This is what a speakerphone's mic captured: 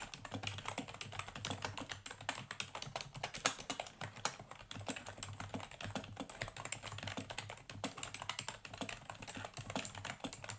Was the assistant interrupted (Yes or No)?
No